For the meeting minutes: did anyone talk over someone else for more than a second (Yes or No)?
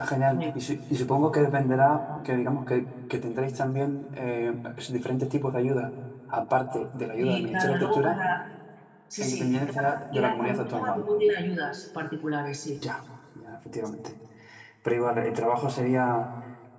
Yes